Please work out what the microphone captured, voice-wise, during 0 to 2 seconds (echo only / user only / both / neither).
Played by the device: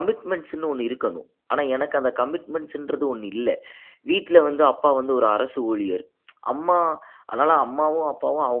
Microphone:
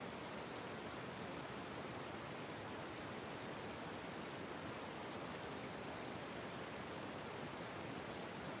neither